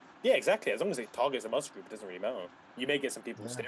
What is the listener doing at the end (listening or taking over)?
listening